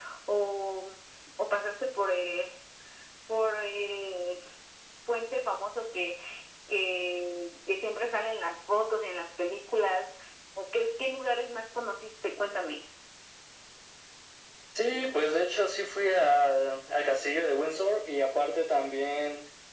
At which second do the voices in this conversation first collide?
none

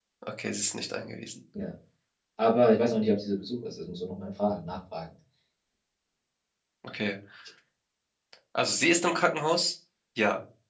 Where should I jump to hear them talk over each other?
none

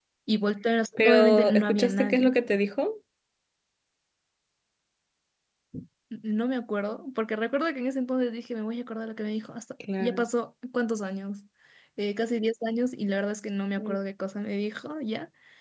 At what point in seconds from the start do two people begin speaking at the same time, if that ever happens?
1.0 s

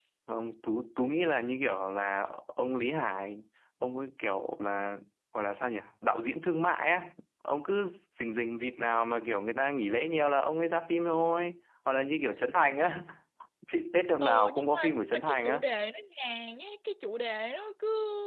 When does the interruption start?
14.2 s

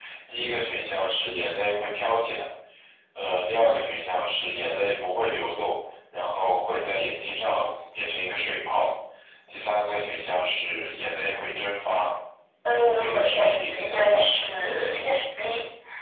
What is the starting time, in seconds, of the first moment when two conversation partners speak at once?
12.9 s

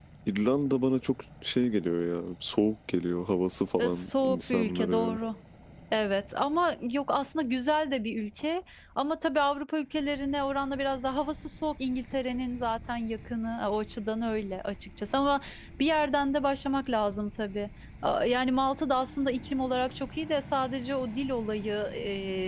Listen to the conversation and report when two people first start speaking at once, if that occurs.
3.8 s

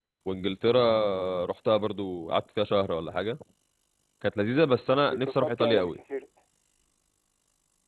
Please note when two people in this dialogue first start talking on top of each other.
4.5 s

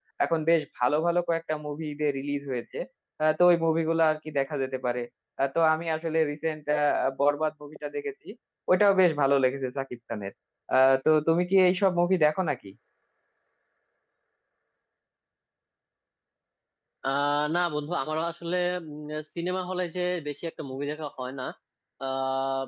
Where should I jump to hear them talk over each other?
none

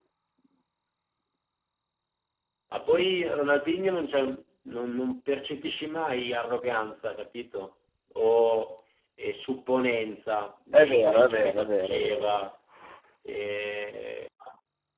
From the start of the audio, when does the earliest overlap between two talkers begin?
10.7 s

